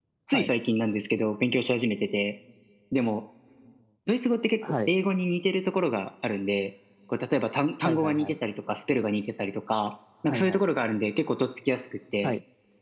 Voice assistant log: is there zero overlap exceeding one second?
Yes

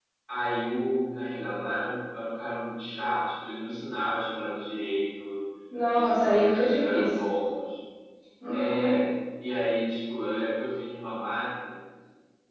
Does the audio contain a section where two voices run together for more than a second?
Yes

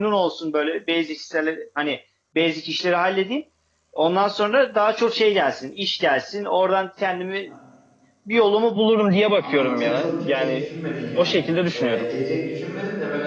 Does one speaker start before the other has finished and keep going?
Yes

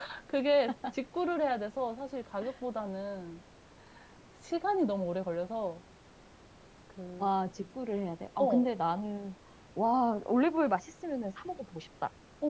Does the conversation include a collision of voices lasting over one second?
No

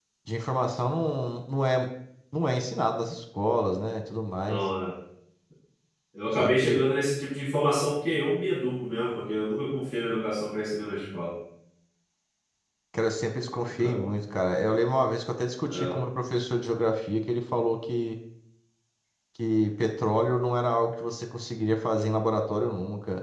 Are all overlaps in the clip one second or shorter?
Yes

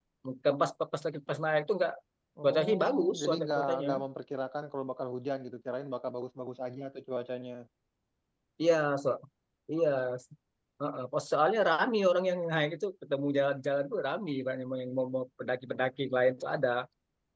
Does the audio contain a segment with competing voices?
Yes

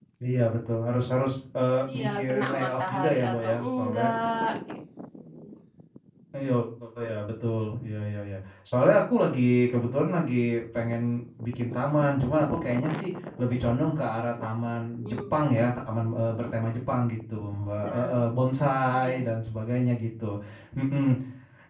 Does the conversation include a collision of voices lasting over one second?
Yes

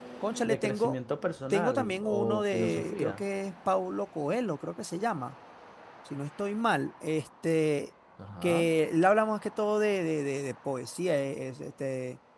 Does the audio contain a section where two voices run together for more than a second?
Yes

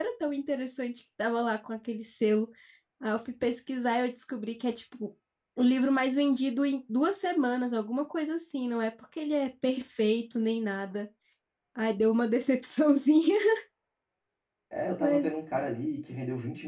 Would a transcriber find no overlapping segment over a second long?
Yes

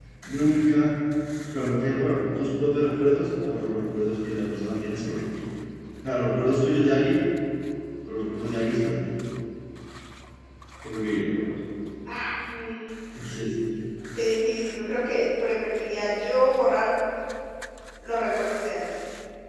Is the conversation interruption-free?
Yes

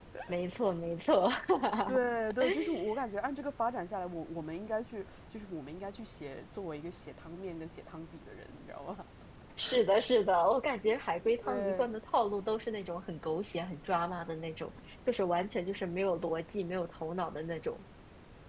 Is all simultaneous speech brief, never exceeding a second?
Yes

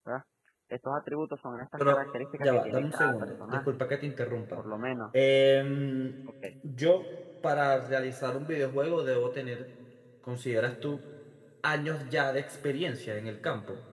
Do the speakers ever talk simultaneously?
Yes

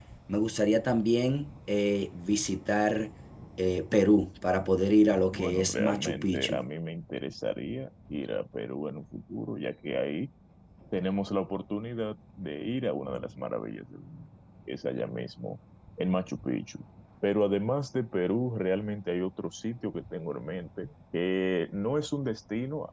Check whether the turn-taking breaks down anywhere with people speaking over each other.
Yes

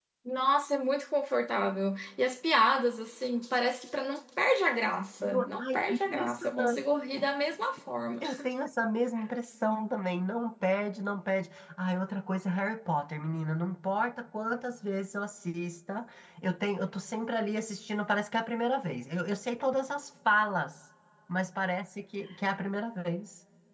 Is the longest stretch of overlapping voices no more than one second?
No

